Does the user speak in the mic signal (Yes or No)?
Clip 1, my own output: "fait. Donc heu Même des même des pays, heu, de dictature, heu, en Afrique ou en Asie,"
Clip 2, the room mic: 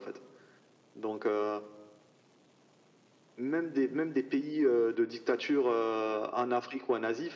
No